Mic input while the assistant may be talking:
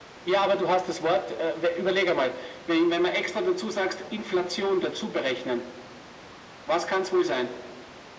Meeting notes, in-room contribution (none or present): none